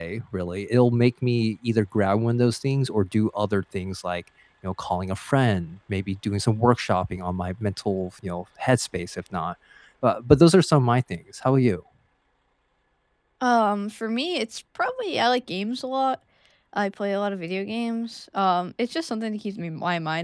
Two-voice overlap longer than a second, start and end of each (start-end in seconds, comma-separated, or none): none